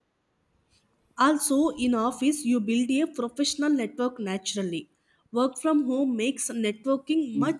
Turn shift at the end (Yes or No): Yes